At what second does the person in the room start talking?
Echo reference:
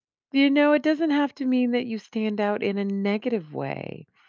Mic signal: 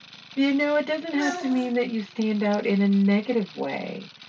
1.1 s

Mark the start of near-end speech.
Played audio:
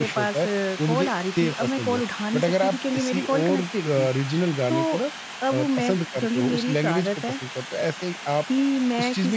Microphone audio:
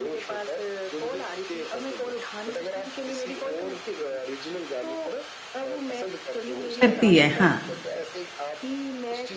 6.8 s

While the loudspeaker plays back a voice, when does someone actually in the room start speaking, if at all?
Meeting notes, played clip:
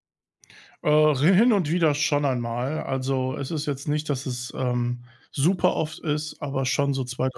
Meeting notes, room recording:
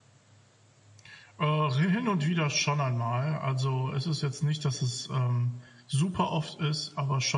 none

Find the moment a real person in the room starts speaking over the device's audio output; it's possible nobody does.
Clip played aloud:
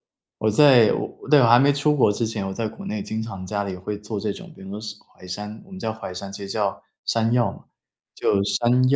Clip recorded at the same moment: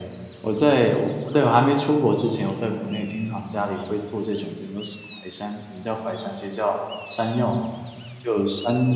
none

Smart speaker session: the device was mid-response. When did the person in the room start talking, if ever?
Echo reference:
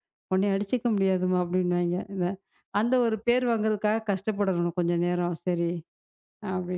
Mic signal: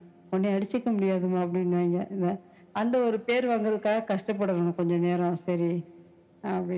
none

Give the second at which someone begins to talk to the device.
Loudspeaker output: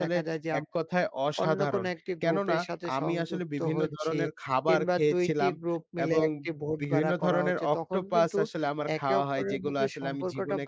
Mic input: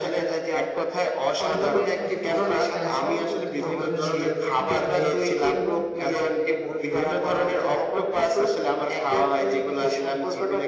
1.6 s

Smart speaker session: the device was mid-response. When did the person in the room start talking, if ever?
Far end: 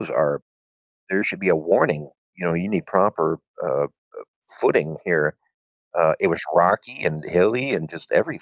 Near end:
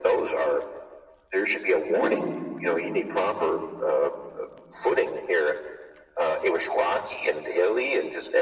1.9 s

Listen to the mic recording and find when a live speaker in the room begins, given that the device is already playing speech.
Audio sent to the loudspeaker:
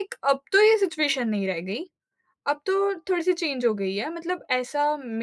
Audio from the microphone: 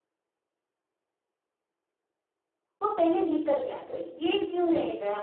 2.8 s

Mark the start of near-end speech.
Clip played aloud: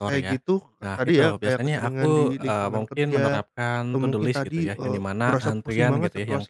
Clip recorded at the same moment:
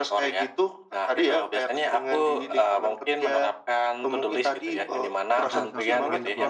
5.4 s

